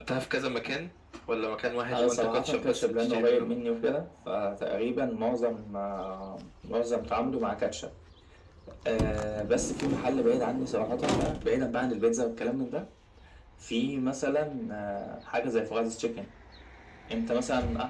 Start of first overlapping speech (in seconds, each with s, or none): 1.9 s